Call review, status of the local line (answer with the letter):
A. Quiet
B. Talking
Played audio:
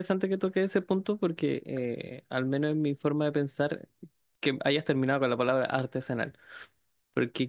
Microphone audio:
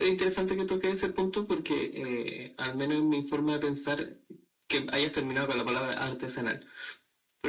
A